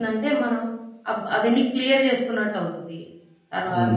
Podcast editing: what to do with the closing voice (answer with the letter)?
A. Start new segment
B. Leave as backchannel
A